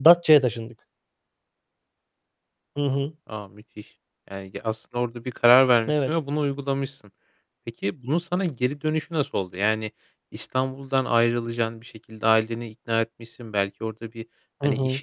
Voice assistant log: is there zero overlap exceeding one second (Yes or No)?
Yes